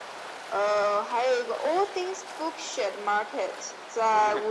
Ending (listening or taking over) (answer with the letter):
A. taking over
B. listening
B